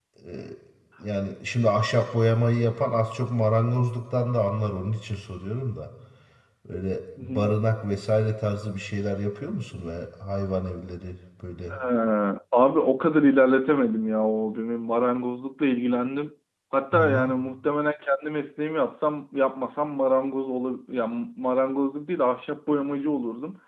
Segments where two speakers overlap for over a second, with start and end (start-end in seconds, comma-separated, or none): none